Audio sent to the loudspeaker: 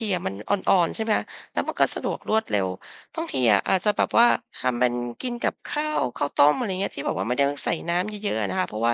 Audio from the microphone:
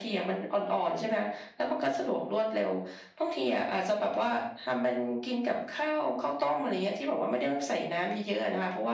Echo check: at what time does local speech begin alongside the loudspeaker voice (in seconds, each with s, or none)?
none